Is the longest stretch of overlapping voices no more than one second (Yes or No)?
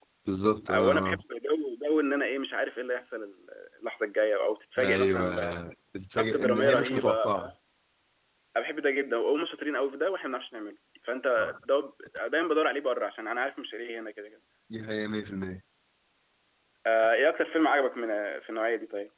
No